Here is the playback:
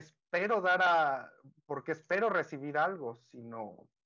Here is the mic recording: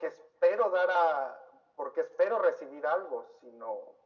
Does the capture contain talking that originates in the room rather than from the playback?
No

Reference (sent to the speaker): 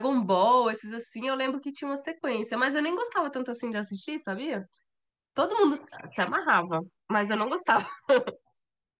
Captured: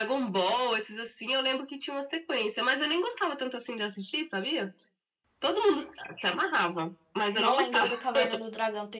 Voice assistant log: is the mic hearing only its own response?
No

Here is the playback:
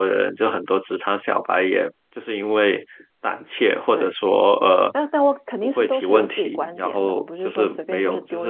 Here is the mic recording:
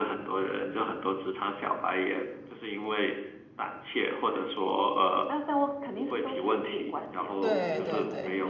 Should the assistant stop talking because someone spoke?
Yes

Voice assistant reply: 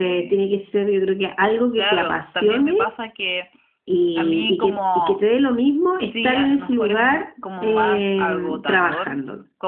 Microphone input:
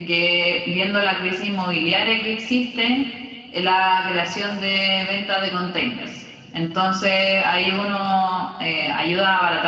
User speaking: Yes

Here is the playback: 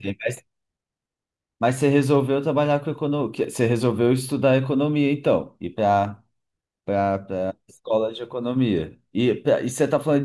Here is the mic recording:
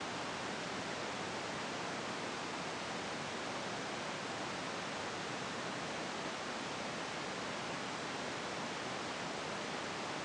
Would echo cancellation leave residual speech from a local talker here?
No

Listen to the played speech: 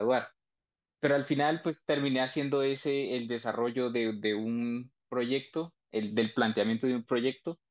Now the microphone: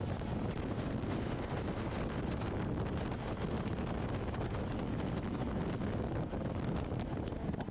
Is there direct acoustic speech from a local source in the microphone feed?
No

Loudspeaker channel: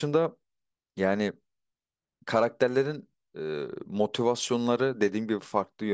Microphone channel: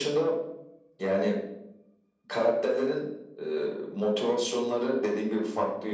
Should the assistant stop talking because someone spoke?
No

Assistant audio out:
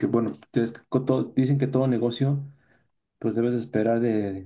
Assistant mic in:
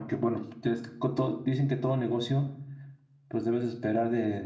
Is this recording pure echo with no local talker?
Yes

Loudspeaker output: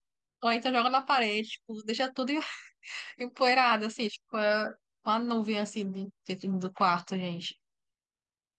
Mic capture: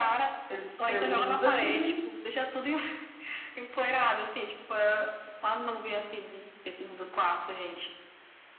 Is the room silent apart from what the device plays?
No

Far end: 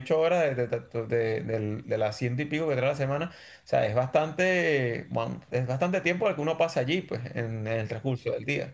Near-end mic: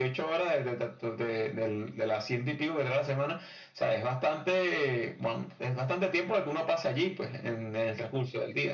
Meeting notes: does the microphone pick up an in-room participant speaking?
No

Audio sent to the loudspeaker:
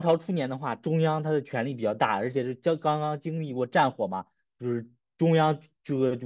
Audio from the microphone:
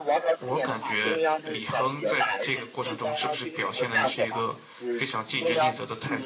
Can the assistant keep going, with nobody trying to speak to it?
No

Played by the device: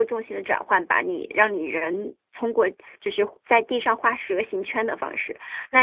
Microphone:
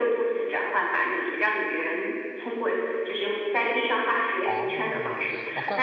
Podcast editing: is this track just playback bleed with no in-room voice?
No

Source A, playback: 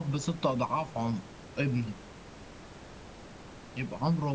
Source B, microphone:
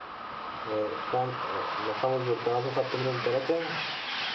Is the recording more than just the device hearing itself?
Yes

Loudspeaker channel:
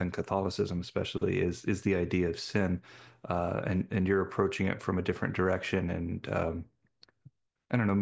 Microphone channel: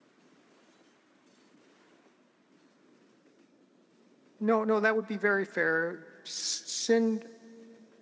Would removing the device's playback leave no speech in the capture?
No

